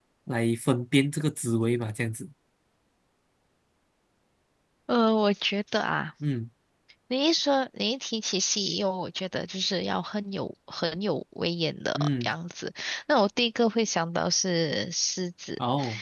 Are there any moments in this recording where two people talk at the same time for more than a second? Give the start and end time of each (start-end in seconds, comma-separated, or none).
none